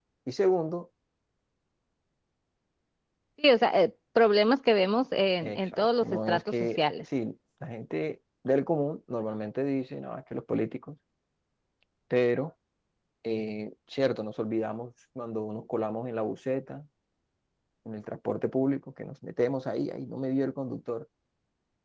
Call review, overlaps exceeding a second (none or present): present